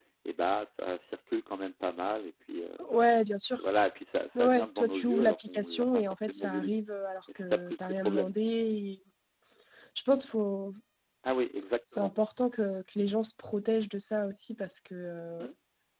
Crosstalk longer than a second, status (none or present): present